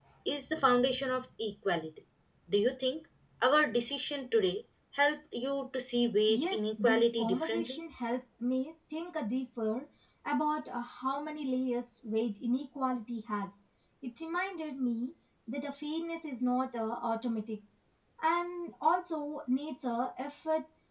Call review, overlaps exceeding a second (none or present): present